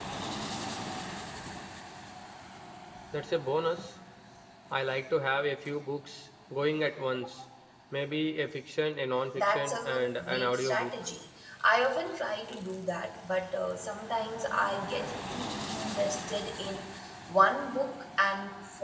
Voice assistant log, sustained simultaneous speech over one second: present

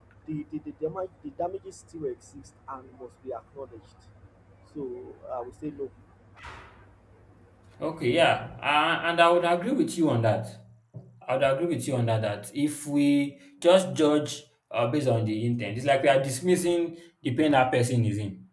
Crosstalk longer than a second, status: none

